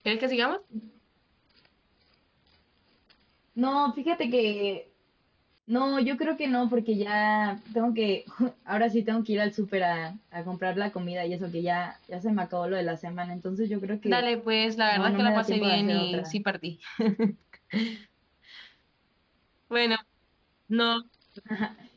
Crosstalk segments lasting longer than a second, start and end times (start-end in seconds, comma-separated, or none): 14.9-16.4